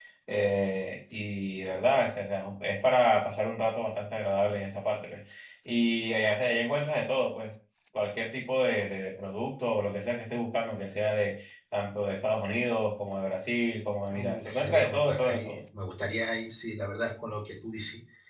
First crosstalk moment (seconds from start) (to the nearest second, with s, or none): 14 s